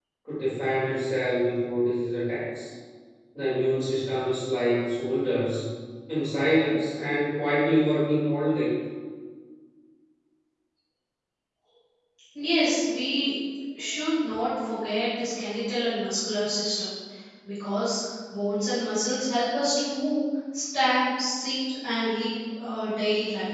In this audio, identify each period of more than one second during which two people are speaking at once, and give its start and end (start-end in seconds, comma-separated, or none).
none